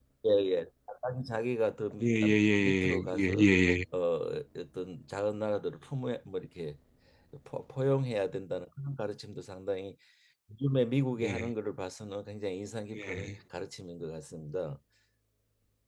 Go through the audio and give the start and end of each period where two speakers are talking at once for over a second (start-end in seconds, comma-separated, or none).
2.0-3.4